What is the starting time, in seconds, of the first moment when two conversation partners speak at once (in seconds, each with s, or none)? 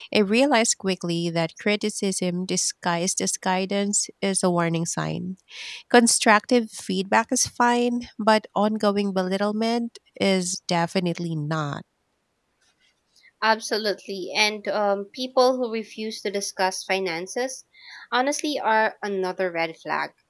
none